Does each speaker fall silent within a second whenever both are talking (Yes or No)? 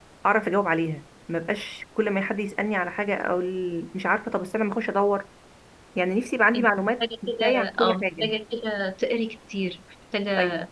No